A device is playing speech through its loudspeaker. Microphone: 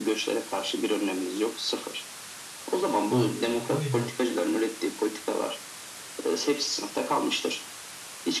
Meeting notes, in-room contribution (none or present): present